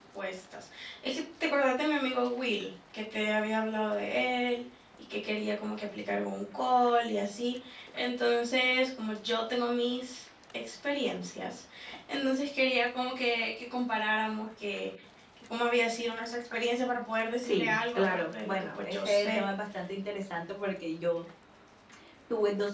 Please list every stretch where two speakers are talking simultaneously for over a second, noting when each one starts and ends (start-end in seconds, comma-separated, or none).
17.4-19.5